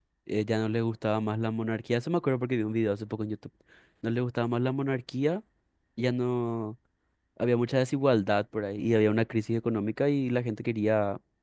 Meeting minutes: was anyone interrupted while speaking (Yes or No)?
No